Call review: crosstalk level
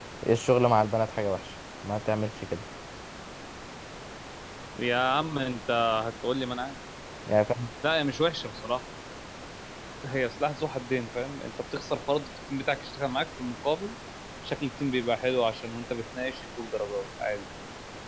none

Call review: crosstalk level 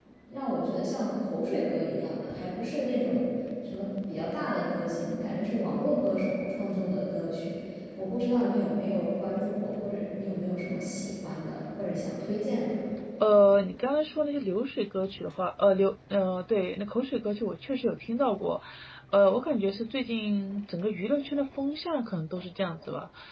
none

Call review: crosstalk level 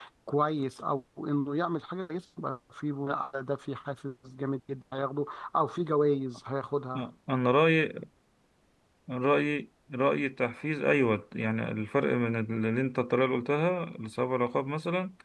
none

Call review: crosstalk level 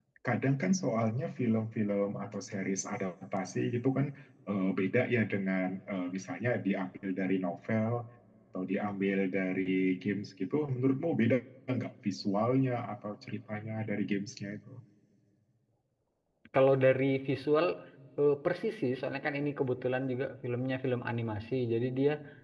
none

